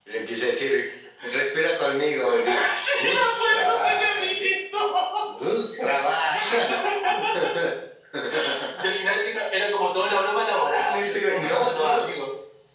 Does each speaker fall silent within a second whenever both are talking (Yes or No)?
No